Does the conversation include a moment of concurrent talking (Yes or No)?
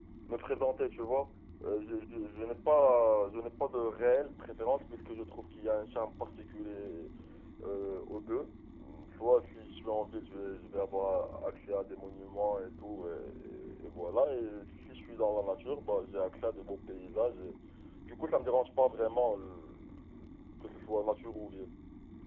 No